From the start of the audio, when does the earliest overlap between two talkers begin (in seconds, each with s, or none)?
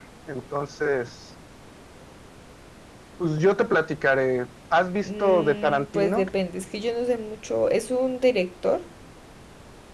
5.0 s